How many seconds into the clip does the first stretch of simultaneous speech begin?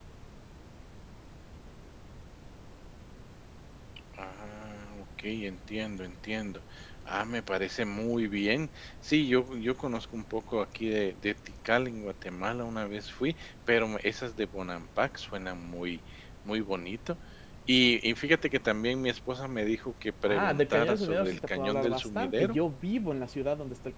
20.2 s

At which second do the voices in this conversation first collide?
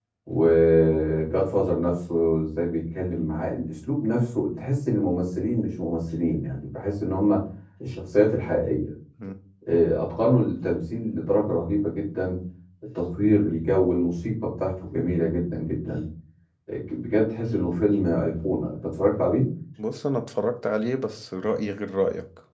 none

